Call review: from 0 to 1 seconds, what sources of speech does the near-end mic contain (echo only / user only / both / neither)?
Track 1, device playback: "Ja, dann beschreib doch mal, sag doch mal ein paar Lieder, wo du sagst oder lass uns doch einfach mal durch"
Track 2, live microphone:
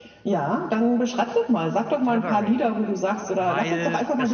echo only